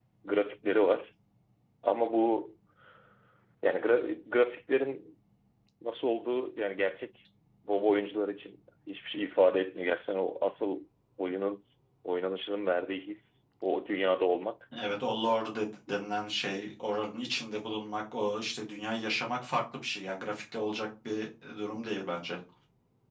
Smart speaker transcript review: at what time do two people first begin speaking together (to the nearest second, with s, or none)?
none